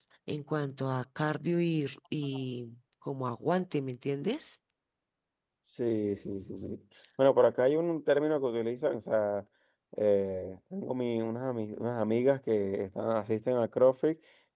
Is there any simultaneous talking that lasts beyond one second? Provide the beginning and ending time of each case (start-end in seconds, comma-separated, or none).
none